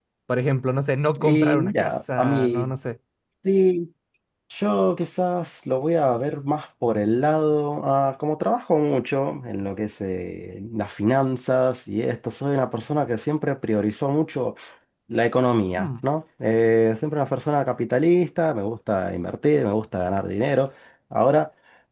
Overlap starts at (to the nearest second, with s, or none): 1 s